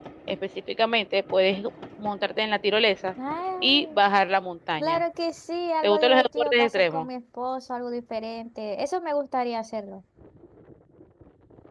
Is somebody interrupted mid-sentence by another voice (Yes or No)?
Yes